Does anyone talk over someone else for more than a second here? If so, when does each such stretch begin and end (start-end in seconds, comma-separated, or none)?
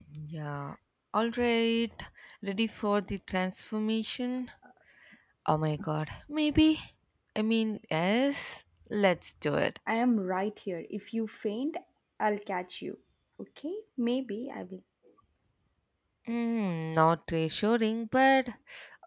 none